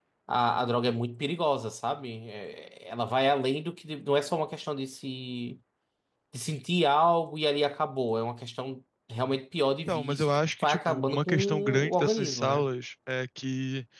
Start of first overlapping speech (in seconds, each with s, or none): 9.9 s